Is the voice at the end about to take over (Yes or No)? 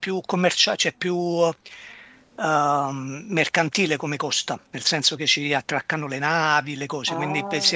Yes